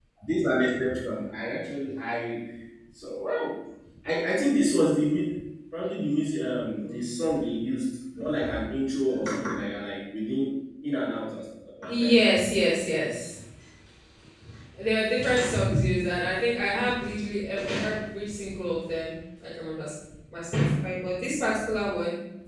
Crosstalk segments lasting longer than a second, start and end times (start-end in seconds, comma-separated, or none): none